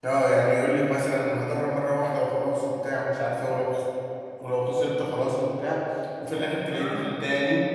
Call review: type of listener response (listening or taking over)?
listening